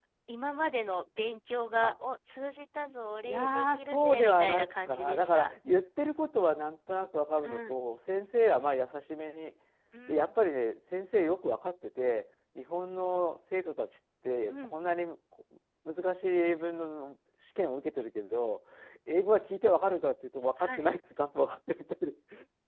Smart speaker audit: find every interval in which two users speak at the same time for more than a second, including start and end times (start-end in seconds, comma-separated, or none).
3.2-5.5